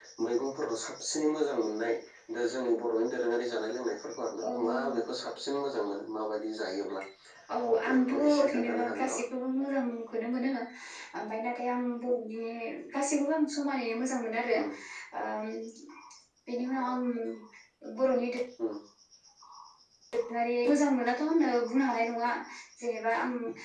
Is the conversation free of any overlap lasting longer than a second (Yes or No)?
No